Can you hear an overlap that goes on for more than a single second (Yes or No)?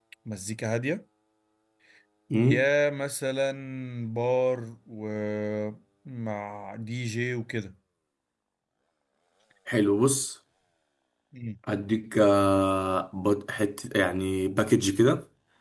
No